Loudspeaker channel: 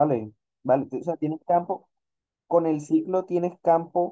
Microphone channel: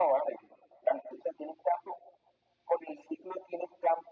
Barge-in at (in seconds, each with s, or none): none